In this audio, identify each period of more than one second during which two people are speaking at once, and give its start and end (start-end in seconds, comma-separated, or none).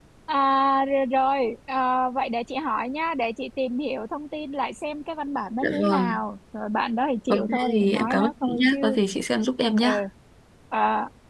7.3-8.8